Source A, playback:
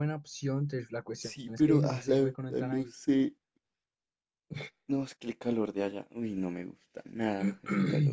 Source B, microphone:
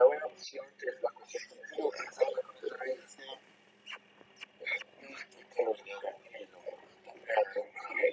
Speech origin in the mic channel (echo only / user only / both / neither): echo only